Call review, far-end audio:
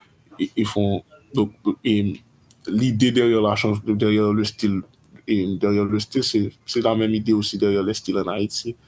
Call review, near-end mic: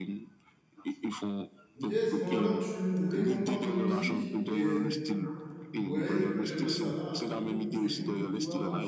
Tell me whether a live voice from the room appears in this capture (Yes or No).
Yes